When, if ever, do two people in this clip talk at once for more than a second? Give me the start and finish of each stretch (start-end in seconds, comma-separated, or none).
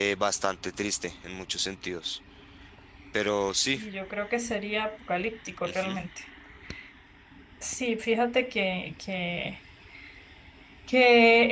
none